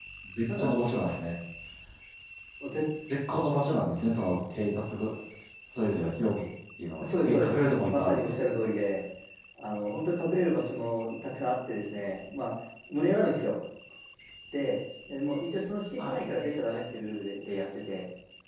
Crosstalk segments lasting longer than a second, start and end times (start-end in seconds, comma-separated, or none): 7.0-8.4